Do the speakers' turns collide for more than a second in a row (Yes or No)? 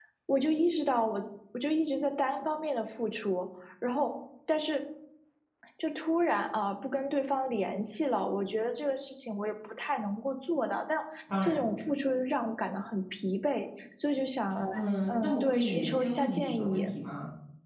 Yes